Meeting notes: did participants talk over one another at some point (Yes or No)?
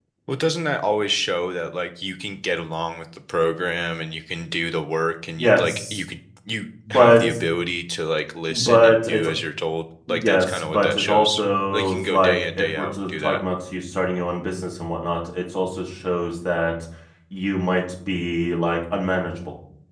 Yes